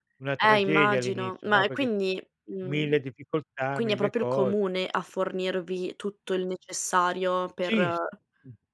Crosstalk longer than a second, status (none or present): present